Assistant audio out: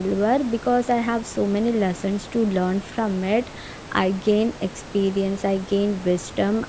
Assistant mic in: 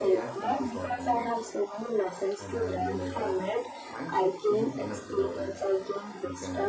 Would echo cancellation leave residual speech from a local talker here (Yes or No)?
Yes